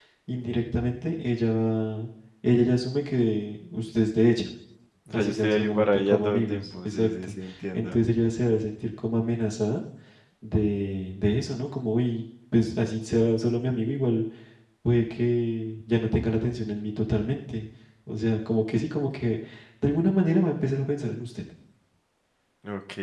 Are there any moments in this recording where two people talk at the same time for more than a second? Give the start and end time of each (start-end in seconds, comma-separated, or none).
5.1-7.3